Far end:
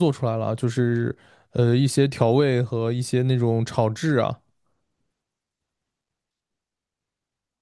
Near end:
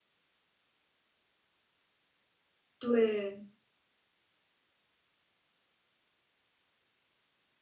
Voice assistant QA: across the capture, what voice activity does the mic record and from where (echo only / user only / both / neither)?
user only